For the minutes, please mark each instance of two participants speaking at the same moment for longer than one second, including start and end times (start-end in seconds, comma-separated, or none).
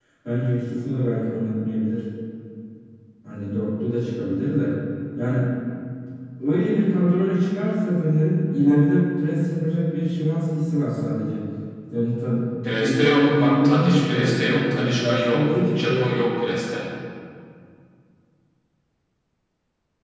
12.8-16.1